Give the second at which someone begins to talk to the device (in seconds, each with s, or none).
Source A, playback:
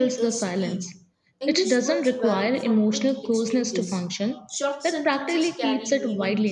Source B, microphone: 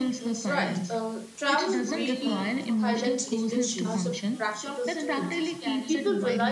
0.5 s